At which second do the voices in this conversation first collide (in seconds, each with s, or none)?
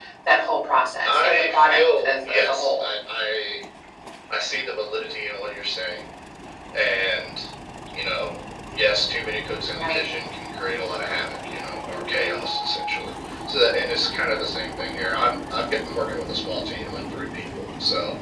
1.0 s